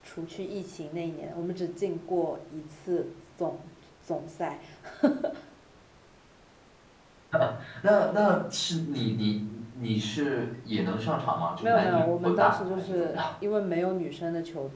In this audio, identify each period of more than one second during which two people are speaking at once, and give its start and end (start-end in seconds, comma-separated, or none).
11.6-13.2